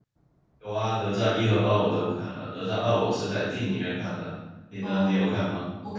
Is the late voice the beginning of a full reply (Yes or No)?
Yes